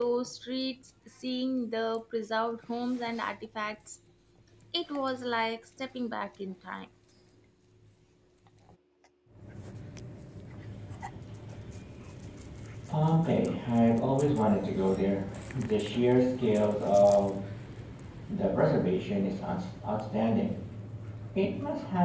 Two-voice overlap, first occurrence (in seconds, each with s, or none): none